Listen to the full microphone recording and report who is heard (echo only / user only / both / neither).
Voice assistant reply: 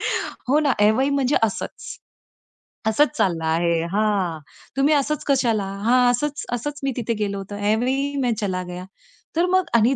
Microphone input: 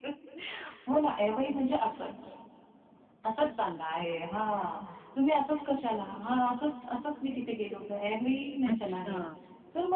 both